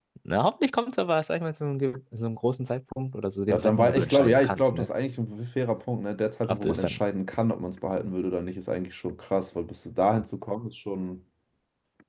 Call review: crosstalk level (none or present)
present